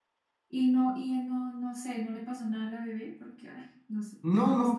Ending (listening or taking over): taking over